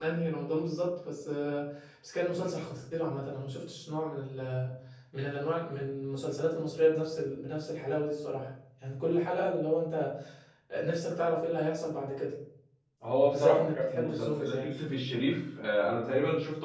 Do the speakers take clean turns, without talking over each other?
No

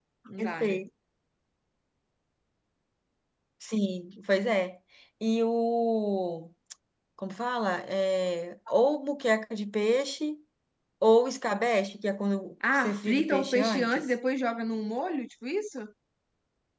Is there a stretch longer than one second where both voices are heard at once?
Yes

